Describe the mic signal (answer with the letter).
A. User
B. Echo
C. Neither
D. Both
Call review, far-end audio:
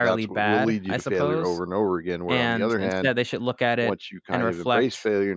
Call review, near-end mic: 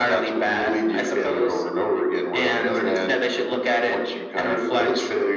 B